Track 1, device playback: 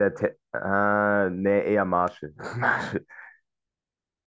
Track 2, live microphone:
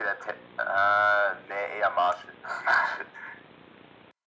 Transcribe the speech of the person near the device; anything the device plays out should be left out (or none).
none